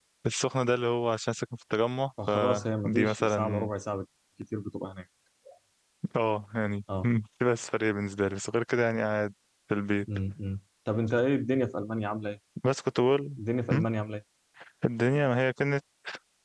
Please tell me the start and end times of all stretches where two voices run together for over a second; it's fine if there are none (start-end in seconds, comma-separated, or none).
2.3-3.7